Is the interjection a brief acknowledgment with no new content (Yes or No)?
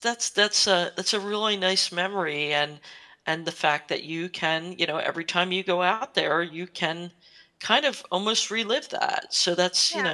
No